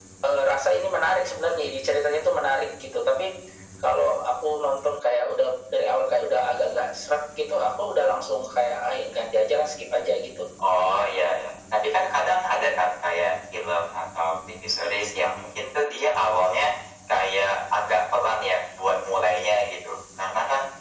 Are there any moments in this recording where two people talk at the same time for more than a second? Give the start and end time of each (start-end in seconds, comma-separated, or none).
none